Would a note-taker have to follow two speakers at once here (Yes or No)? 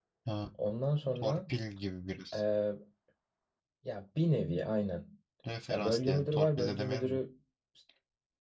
Yes